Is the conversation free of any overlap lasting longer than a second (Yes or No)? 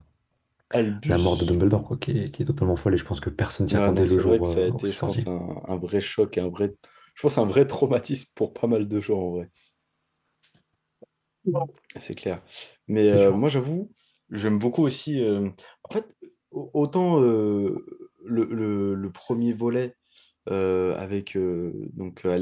No